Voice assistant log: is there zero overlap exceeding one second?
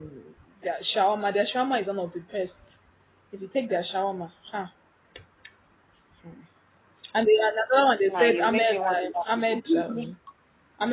No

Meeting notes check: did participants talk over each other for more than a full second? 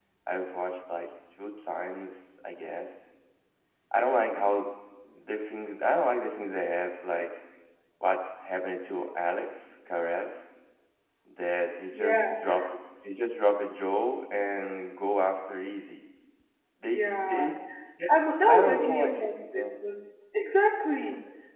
Yes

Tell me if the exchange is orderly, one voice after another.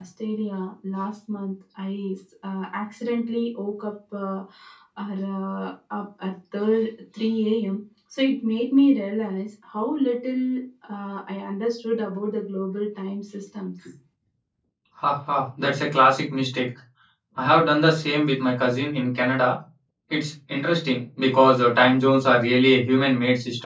Yes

